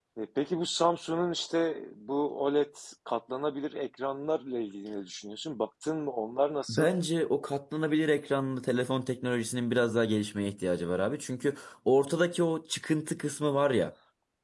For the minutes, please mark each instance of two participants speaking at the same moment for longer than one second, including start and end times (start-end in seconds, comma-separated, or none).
none